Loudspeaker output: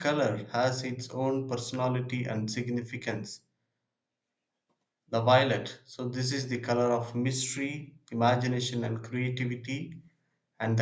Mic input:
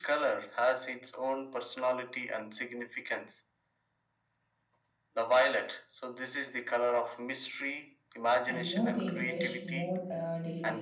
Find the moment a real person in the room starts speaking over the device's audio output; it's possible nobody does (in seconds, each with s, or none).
8.4 s